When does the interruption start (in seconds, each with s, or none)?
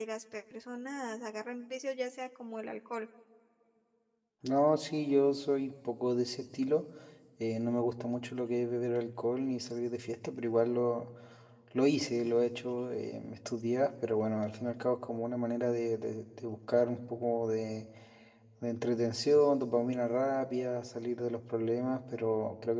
none